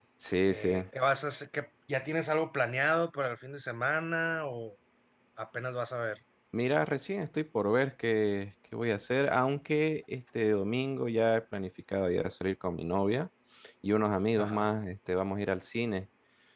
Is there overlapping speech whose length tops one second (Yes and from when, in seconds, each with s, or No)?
No